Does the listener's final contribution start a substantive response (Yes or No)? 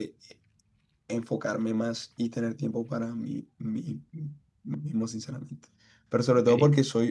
No